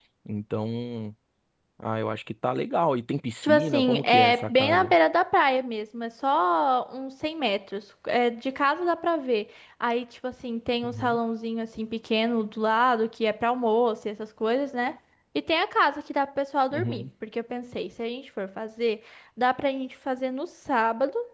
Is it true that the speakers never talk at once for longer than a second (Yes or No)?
No